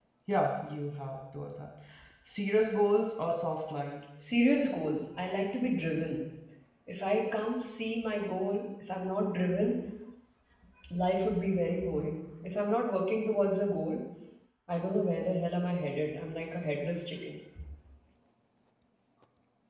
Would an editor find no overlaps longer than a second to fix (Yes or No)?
Yes